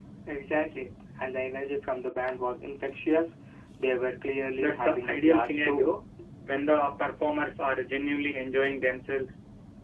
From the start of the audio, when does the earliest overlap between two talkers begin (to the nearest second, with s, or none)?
5 s